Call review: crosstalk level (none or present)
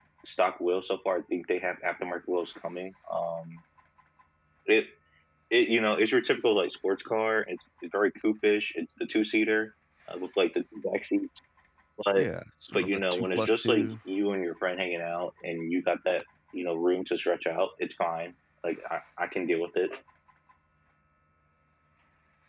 present